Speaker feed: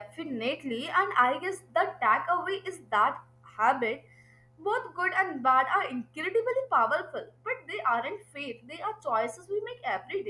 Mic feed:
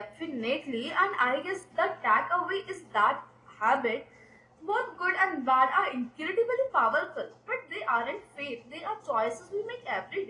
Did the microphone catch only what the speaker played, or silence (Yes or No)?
Yes